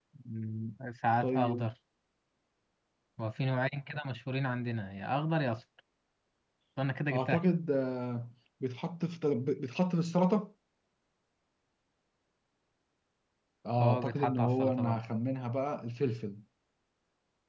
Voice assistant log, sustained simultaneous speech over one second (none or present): present